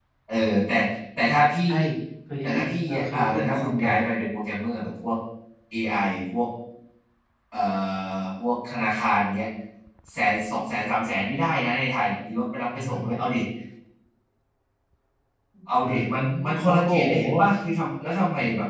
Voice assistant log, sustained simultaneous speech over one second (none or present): present